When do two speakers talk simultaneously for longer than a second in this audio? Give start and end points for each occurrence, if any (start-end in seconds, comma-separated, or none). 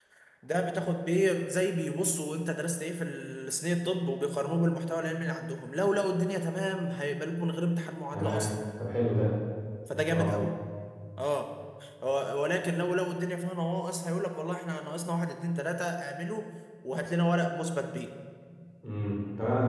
none